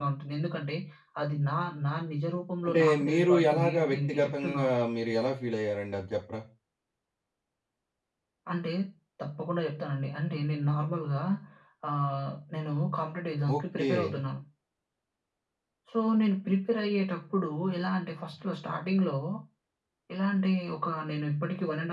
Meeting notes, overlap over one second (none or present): present